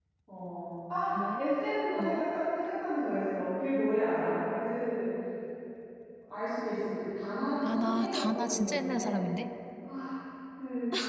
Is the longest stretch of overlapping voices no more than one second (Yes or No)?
No